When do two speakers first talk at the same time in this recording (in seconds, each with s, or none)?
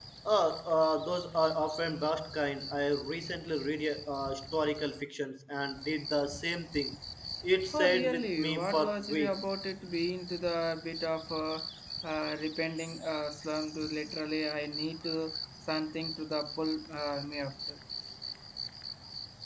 7.7 s